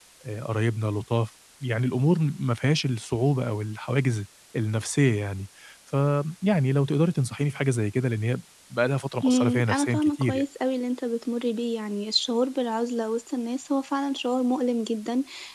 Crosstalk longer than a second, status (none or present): present